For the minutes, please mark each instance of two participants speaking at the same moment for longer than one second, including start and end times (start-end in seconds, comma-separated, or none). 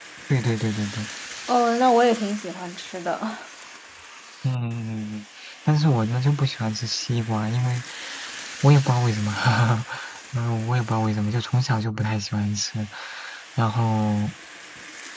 none